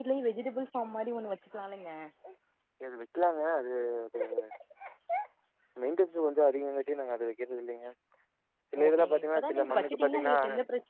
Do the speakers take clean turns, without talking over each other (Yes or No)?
No